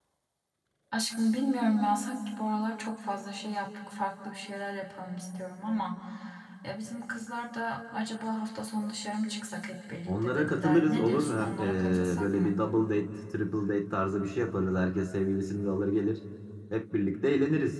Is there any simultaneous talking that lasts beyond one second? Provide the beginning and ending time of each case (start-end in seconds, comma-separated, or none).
10.1-12.6